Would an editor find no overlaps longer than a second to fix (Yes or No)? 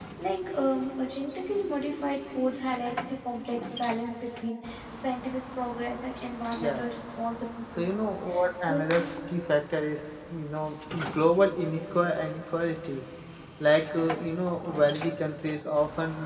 Yes